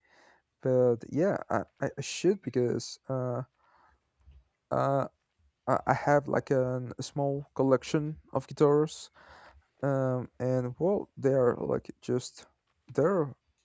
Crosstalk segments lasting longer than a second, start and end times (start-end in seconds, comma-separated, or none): none